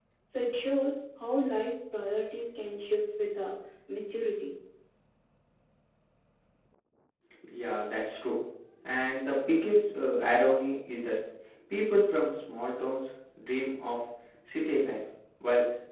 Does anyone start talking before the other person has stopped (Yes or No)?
No